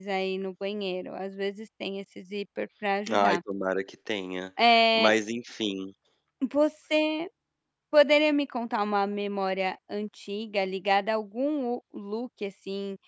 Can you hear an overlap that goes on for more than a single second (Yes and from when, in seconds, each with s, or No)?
No